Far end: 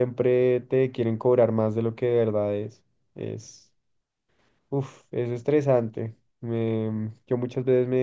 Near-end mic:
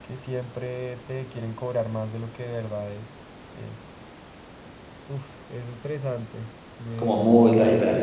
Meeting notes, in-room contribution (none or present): present